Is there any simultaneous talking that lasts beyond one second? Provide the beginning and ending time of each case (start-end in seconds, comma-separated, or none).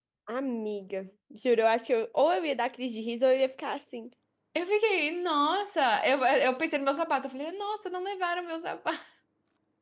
none